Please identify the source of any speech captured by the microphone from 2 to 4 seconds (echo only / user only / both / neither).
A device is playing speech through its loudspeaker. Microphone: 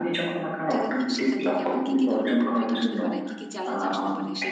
both